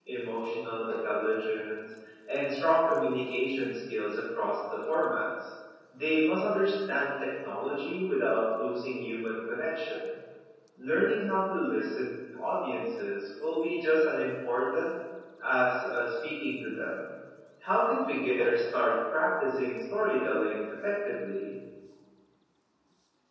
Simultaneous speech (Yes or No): No